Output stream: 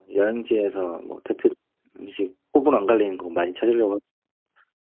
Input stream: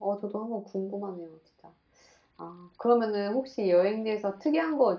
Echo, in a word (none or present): none